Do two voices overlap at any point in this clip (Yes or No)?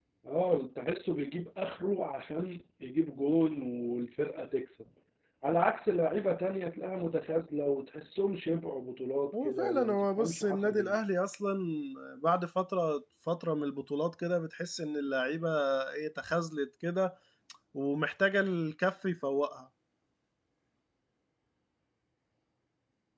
Yes